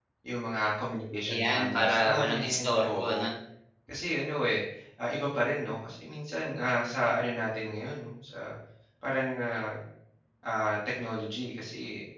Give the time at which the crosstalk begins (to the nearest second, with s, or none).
1 s